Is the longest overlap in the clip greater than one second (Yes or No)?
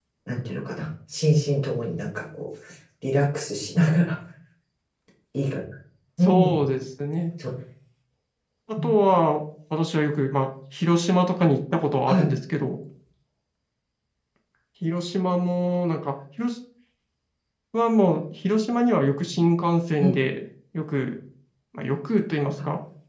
No